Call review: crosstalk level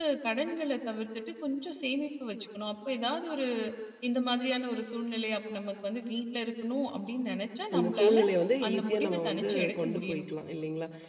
present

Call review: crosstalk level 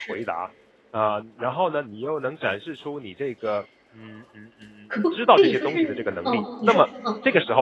present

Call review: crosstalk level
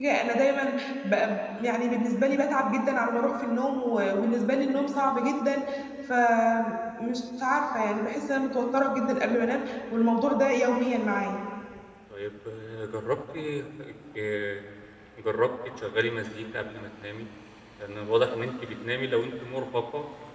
none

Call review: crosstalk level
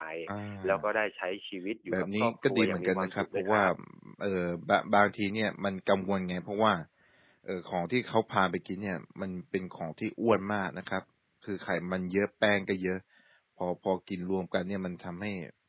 present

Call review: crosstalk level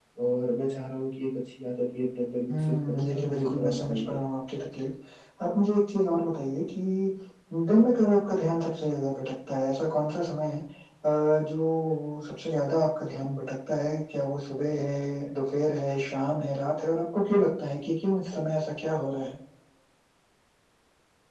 present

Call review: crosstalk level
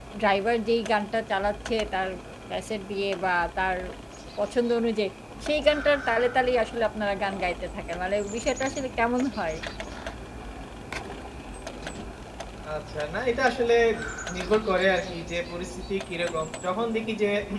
none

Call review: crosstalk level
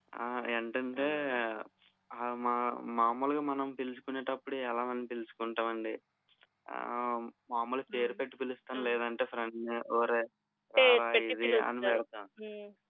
present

